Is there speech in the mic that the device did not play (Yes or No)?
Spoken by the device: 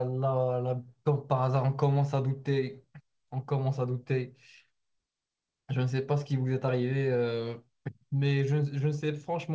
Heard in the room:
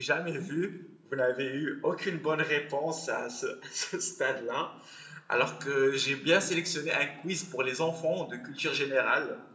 Yes